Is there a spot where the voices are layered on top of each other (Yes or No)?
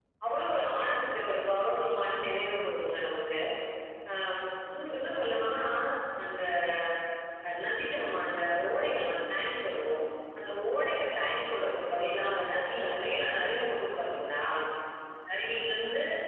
No